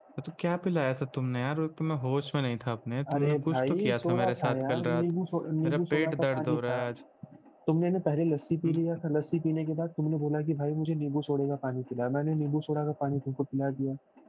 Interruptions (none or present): present